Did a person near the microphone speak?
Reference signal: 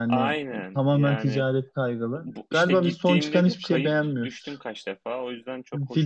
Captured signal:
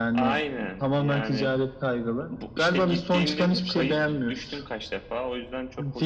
No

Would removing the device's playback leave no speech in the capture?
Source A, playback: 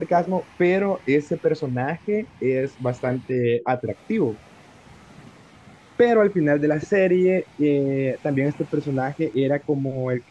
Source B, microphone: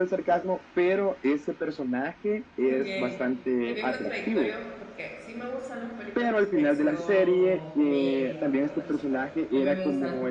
No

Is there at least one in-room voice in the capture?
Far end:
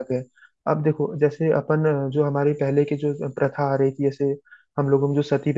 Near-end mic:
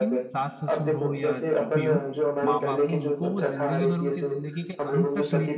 Yes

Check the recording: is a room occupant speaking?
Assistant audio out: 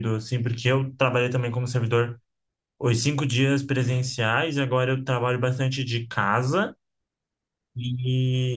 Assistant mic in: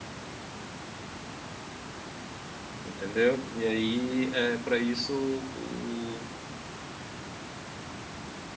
Yes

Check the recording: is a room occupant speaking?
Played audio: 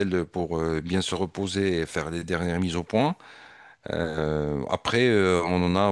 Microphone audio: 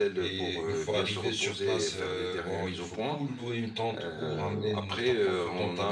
Yes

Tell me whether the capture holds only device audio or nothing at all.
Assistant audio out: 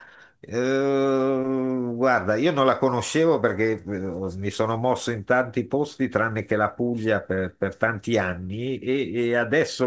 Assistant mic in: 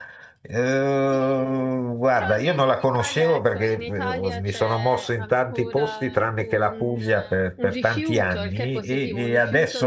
No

